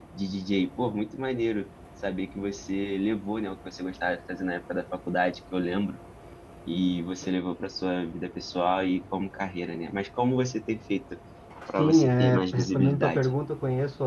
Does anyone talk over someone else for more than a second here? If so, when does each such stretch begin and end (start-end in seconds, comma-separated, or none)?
11.8-13.3